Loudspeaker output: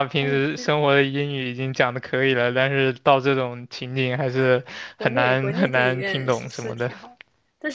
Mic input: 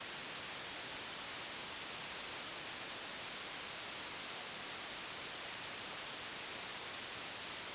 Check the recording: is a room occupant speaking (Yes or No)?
No